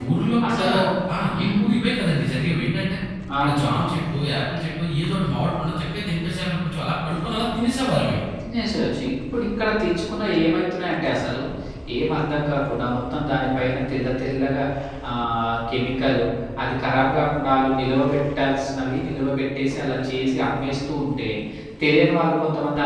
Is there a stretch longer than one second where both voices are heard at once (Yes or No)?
No